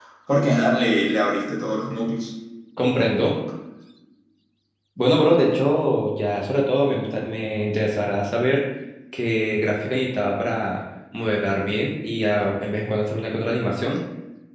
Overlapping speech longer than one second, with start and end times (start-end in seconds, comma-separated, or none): none